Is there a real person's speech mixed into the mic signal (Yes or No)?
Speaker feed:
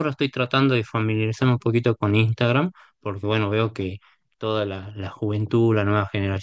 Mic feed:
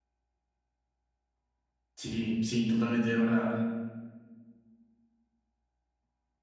Yes